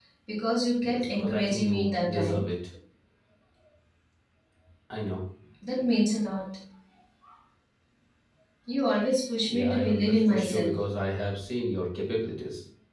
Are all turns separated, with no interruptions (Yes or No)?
No